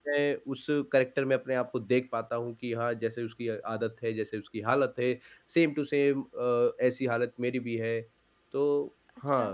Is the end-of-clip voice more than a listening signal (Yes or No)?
Yes